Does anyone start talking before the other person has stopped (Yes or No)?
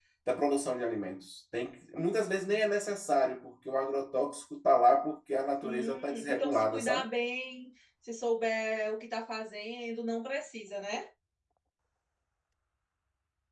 Yes